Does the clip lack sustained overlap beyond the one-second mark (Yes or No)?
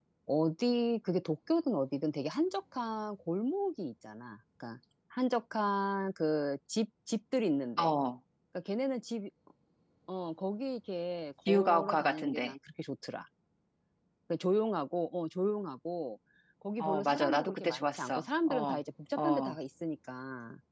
No